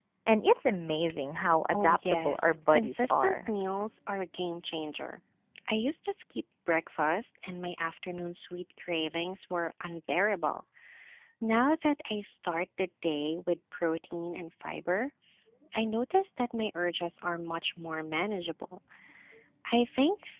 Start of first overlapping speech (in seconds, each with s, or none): 1.7 s